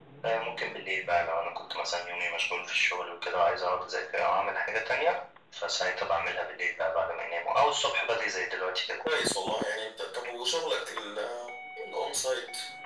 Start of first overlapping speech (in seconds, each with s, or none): none